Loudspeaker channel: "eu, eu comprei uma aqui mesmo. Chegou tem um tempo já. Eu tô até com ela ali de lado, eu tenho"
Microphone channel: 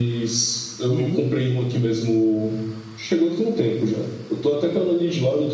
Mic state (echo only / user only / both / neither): both